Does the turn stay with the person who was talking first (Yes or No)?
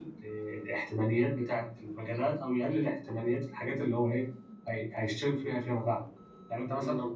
Yes